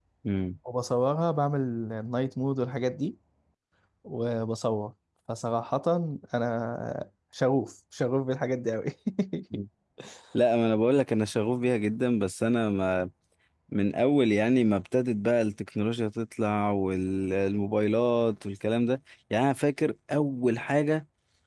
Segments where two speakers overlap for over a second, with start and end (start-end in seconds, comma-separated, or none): none